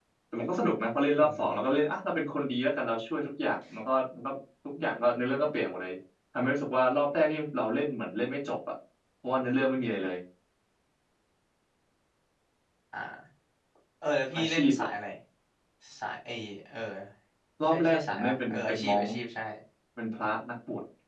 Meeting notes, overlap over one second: present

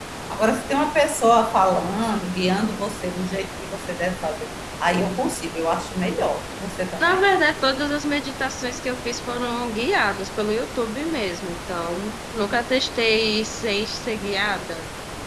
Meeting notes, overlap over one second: none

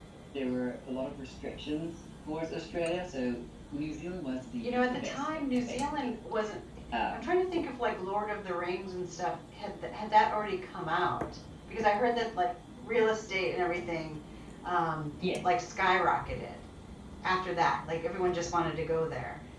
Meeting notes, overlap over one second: present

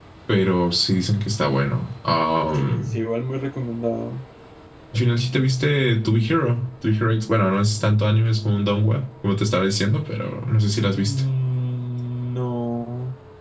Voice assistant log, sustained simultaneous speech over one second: none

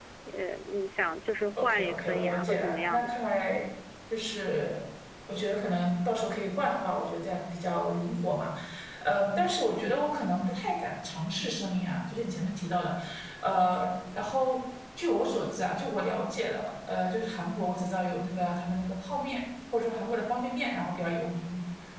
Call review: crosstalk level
present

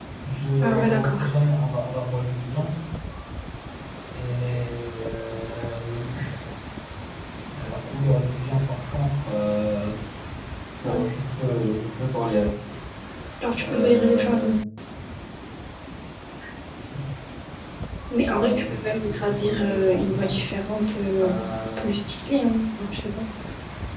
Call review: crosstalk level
present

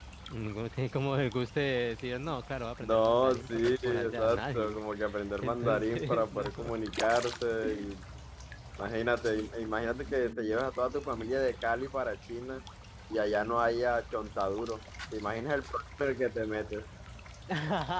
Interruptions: present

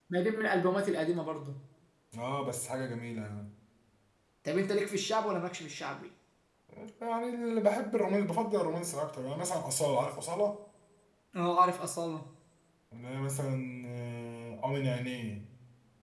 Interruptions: none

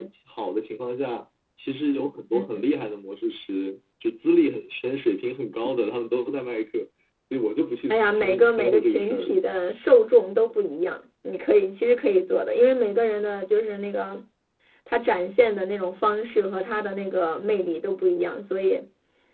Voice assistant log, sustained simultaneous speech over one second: present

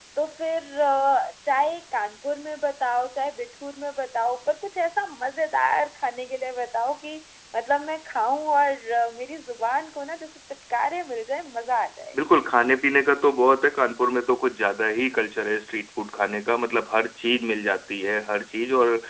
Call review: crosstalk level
none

